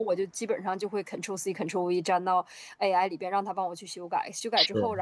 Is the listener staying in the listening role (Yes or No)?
Yes